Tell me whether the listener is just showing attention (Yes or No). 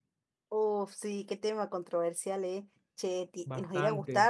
Yes